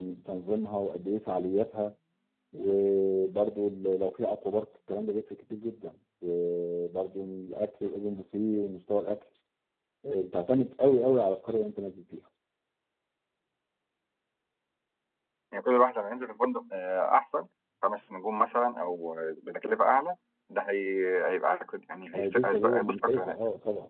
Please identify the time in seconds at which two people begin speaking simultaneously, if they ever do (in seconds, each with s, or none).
22.1 s